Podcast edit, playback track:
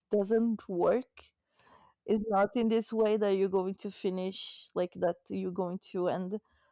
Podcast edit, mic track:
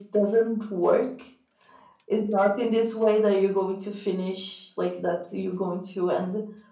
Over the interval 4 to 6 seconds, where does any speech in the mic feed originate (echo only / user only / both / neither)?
echo only